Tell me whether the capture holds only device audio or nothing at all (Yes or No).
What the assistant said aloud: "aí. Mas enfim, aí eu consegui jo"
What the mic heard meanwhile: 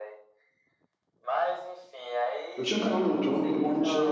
No